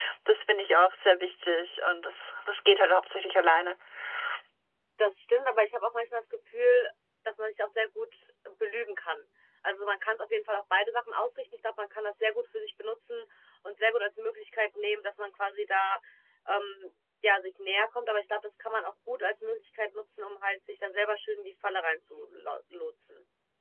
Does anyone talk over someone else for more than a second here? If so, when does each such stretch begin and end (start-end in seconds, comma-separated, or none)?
none